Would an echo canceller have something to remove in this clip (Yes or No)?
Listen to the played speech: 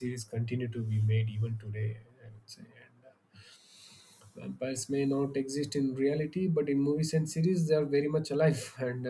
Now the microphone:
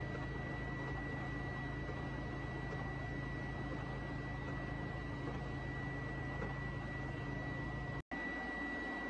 No